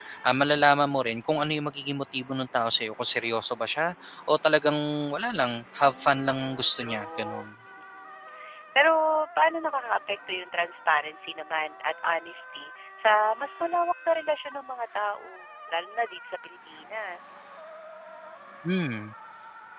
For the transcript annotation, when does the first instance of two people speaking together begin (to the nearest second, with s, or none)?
6 s